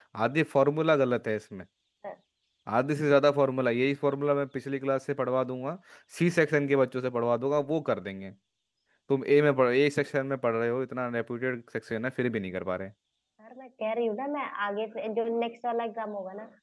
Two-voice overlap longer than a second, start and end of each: none

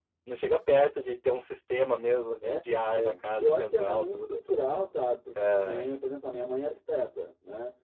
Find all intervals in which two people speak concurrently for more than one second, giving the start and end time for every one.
3.0-4.4

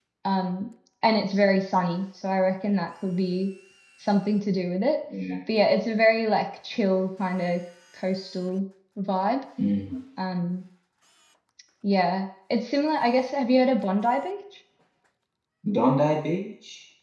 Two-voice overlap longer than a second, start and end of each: none

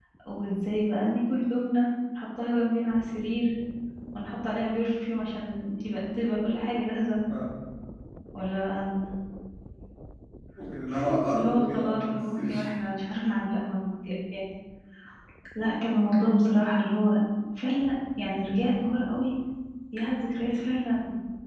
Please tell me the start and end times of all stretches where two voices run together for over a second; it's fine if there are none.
11.3-12.7

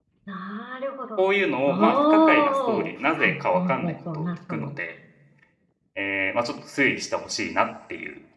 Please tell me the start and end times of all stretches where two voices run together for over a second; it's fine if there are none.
1.7-4.7

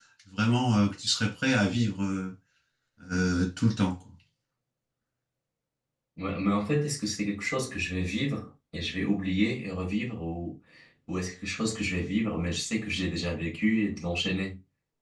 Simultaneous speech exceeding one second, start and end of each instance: none

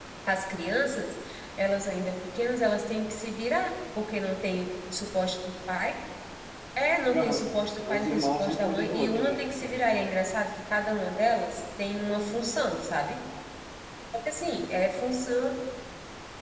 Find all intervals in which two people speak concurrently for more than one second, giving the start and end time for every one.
7.9-9.8

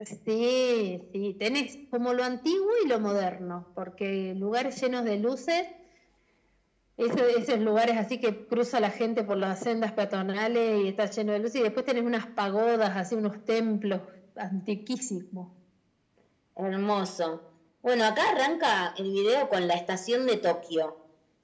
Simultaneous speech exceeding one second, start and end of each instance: none

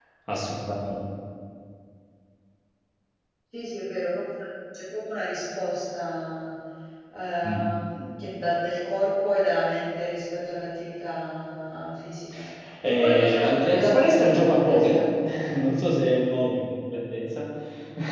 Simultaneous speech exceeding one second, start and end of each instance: 12.8-15.0

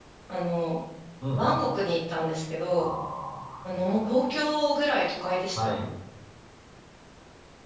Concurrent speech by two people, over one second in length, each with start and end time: none

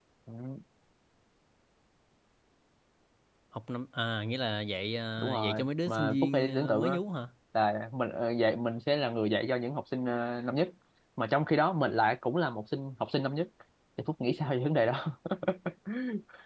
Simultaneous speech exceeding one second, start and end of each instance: 5.2-7.0

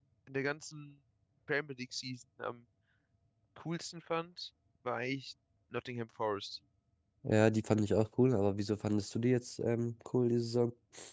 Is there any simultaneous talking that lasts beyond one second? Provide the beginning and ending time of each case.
none

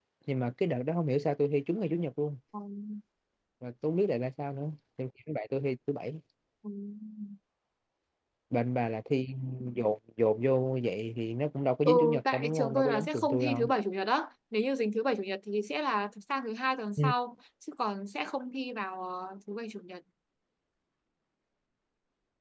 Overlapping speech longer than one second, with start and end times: 11.8-13.7

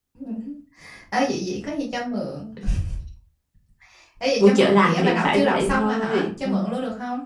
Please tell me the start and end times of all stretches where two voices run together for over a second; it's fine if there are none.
4.4-6.5

